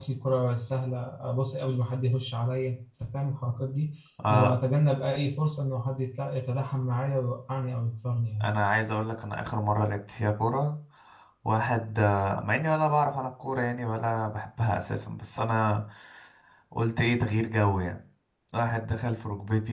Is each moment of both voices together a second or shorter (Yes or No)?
Yes